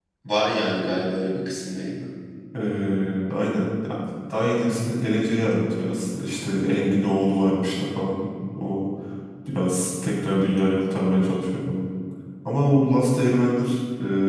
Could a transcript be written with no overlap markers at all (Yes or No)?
Yes